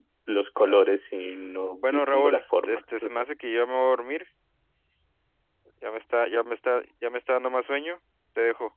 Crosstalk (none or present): present